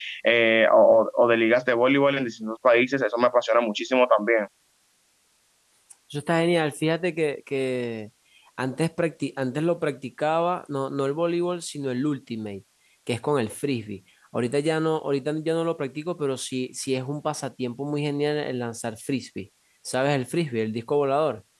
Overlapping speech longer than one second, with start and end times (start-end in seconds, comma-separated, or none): none